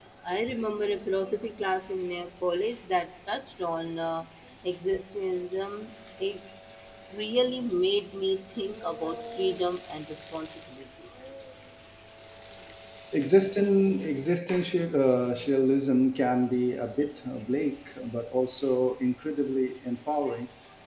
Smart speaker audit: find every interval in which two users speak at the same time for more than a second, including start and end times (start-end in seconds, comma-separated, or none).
none